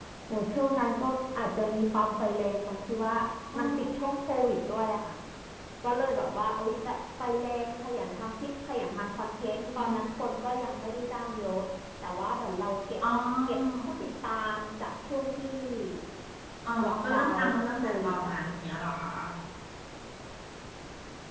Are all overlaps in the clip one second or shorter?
No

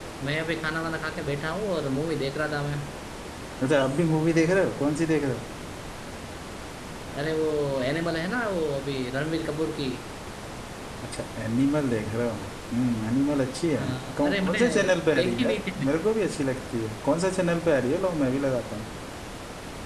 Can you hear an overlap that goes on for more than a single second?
Yes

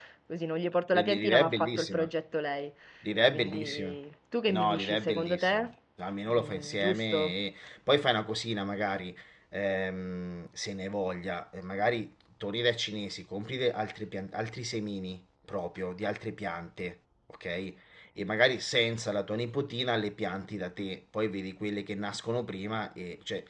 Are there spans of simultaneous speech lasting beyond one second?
Yes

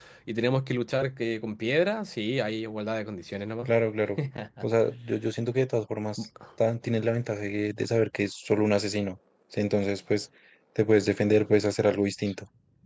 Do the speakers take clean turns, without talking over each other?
Yes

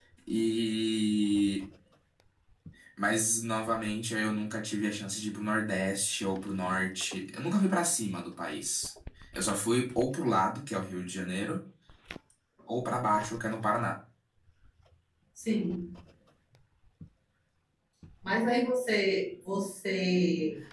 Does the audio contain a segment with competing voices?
No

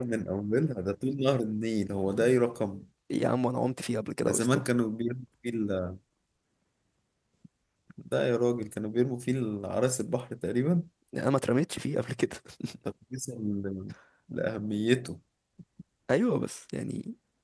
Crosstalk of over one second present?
No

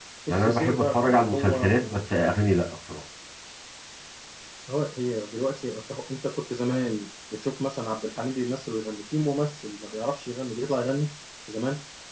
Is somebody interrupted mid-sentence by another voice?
Yes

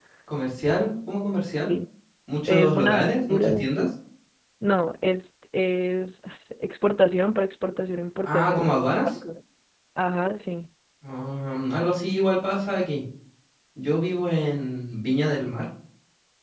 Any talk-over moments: Yes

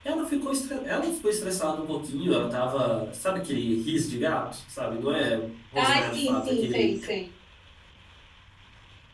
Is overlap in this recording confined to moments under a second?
No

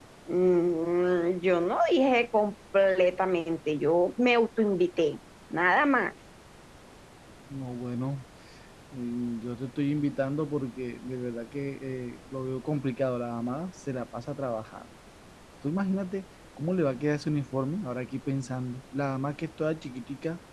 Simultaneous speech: No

